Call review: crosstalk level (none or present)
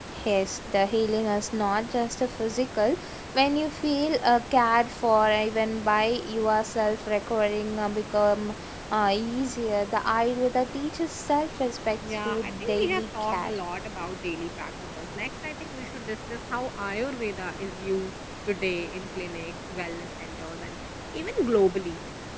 present